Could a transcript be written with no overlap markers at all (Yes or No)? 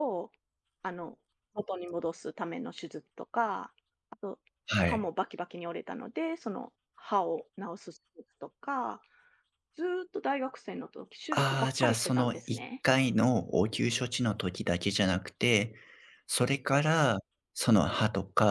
No